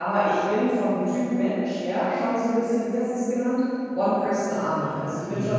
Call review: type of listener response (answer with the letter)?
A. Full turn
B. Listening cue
B